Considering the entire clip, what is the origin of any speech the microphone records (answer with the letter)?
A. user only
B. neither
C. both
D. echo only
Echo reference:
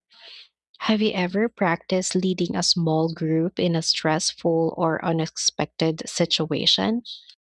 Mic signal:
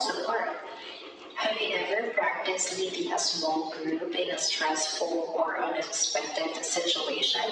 D